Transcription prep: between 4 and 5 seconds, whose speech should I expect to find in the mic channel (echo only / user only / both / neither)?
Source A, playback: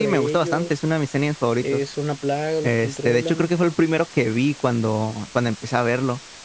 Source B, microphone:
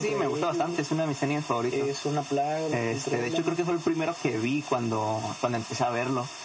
echo only